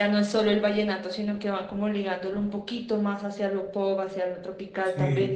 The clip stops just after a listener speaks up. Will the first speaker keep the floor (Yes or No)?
Yes